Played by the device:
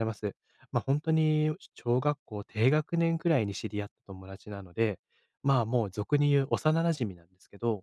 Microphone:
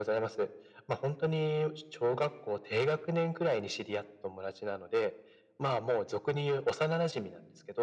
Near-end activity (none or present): none